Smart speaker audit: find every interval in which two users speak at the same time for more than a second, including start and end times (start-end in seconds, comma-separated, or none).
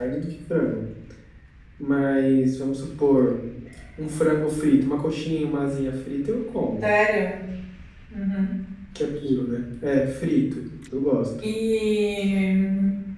none